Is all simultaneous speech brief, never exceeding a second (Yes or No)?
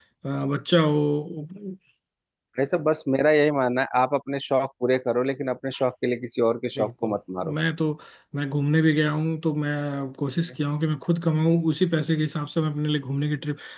Yes